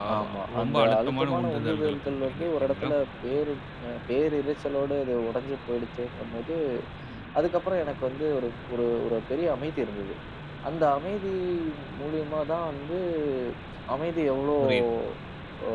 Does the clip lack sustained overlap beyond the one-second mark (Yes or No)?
No